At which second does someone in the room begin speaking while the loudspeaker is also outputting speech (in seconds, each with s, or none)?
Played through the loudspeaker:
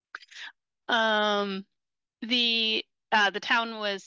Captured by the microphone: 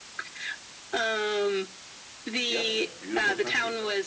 2.5 s